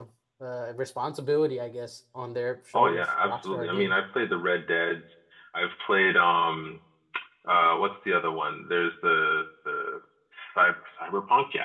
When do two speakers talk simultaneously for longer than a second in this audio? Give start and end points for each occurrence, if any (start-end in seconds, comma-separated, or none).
2.7-4.0